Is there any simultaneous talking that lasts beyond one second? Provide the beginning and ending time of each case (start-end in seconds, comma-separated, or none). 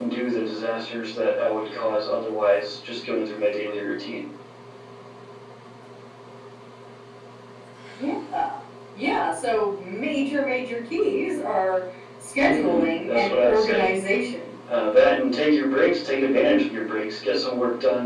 12.4-13.9